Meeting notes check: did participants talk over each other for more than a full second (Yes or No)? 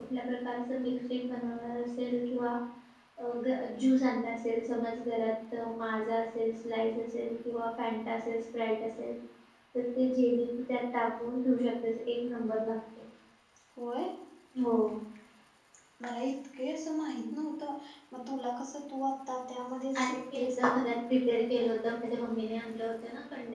Yes